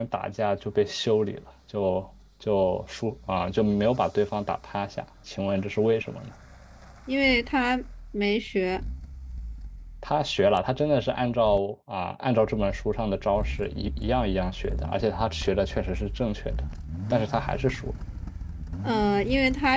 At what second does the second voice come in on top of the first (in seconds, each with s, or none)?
none